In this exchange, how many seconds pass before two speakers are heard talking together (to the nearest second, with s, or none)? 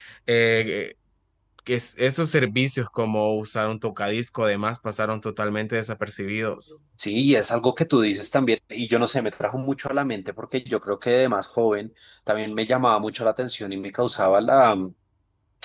none